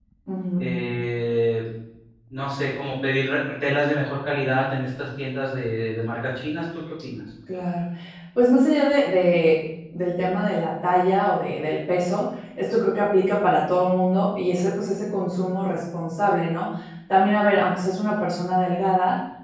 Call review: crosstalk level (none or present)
none